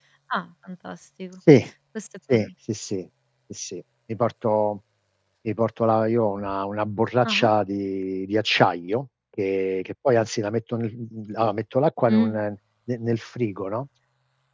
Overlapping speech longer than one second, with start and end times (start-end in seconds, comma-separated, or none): none